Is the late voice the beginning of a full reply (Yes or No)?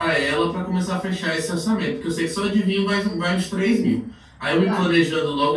No